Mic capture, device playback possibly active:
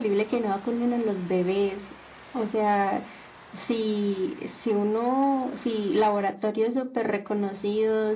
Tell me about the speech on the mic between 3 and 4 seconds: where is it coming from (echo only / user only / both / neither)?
echo only